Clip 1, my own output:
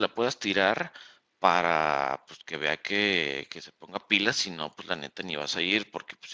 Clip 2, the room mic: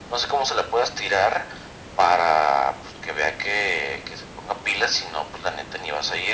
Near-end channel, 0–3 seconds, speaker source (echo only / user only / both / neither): echo only